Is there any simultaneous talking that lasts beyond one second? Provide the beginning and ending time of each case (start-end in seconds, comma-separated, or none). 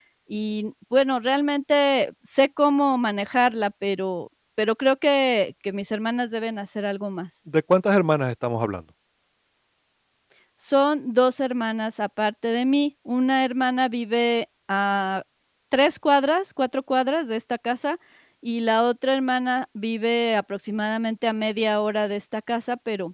none